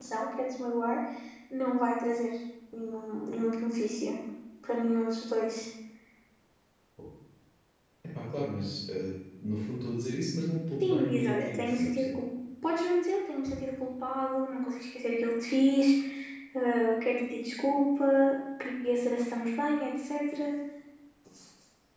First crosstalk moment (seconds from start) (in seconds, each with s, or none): 10.8 s